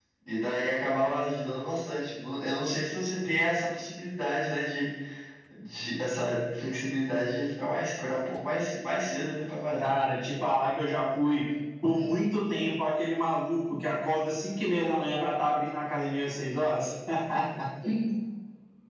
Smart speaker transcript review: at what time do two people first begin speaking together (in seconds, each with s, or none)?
none